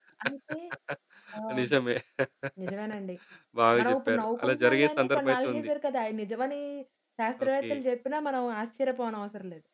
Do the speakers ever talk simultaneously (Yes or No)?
Yes